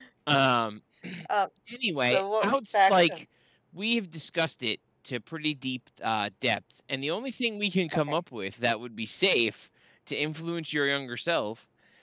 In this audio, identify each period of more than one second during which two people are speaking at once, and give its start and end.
2.0-3.2

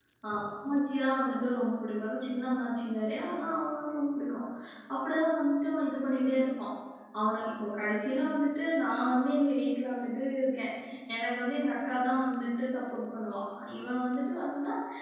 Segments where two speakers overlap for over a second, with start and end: none

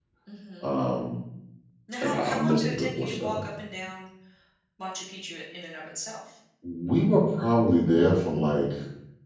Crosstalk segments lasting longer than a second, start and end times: 2.0-3.4

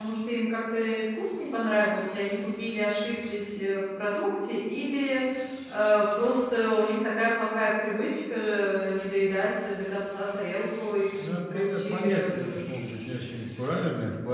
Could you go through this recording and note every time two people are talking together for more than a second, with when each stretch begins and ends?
11.3-12.6

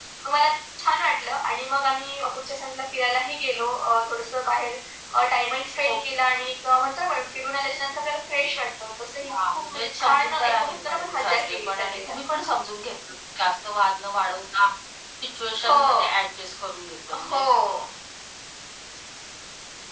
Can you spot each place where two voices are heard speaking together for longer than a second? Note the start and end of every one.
9.3-12.2

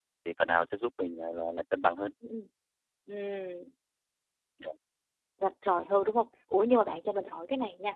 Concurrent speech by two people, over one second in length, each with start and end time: none

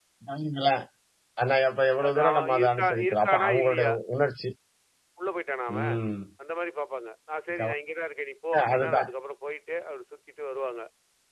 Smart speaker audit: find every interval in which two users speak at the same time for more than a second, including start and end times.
2.0-3.9

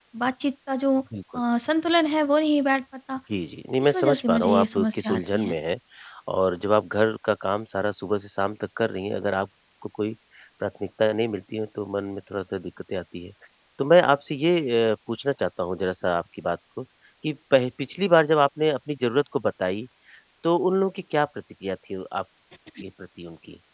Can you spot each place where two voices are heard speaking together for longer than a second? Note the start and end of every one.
3.8-5.5

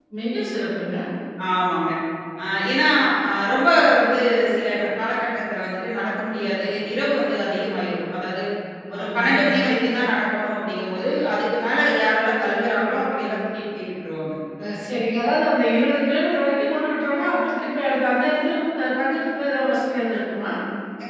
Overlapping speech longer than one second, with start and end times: none

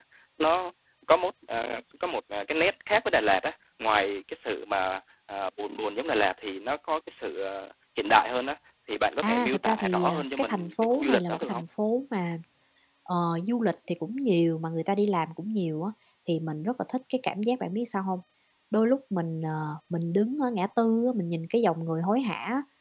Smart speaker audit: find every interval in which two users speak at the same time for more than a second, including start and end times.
9.2-11.6

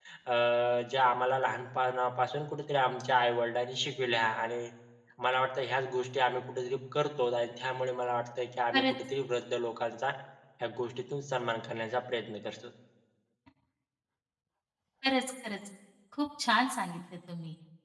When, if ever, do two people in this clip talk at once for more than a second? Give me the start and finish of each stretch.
none

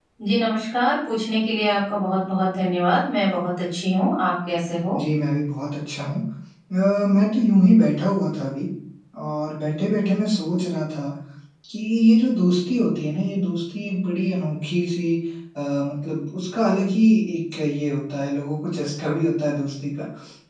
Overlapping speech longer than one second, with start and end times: none

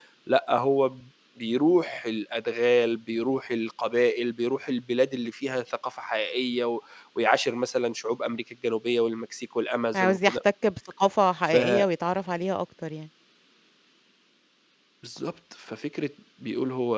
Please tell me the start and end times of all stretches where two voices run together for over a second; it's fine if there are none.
none

